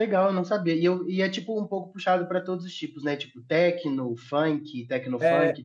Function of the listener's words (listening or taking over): taking over